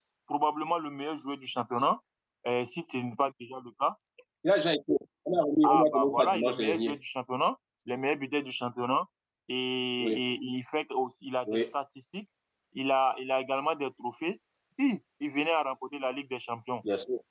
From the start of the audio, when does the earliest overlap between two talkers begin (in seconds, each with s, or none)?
5.6 s